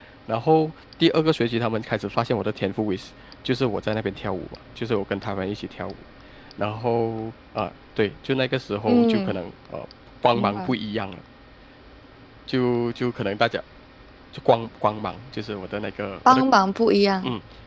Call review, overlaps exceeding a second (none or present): none